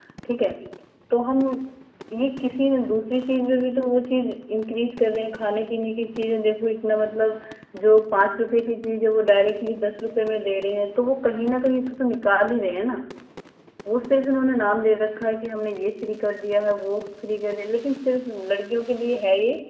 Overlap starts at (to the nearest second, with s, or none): none